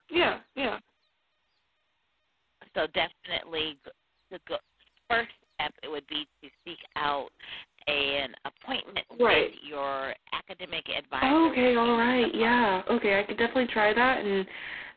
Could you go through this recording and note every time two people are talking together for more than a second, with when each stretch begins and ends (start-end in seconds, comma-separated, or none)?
11.2-12.8